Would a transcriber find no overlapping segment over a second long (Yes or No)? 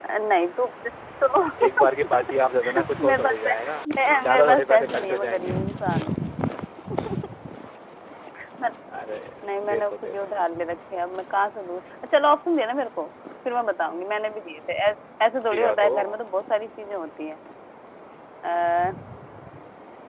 No